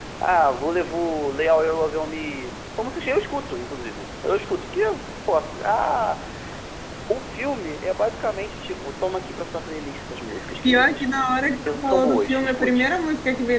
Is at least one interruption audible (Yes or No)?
Yes